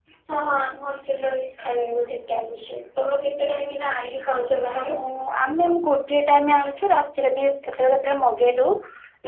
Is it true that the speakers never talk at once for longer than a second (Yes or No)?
Yes